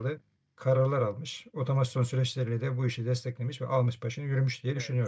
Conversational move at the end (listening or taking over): taking over